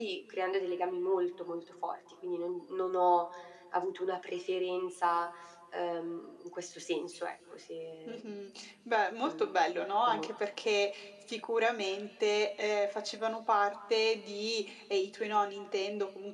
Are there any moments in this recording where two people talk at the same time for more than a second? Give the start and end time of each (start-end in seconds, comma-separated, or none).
none